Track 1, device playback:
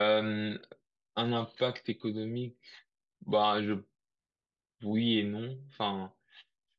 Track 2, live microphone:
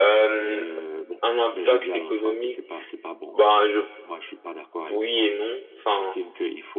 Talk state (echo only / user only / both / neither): both